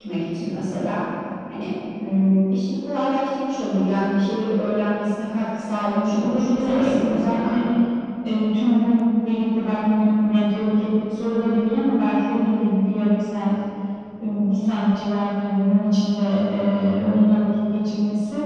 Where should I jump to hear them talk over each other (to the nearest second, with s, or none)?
6 s